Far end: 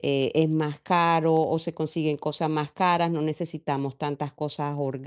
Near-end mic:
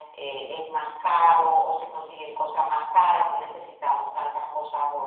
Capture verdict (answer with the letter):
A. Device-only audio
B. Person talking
A